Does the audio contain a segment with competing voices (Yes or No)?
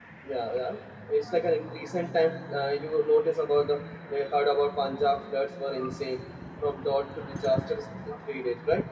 No